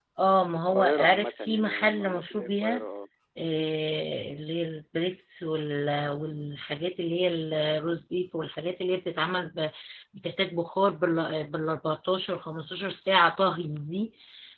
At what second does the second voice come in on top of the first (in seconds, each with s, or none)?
0.7 s